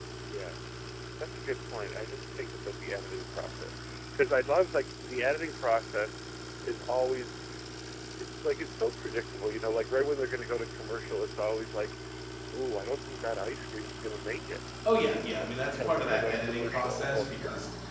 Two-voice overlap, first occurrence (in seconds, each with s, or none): 15.7 s